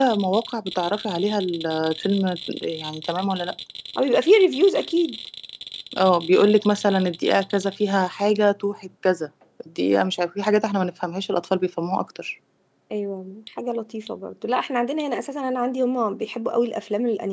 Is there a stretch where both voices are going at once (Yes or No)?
No